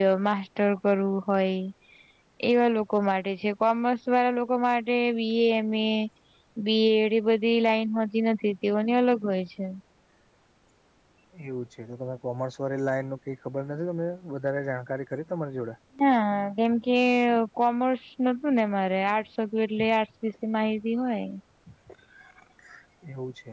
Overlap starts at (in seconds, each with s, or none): none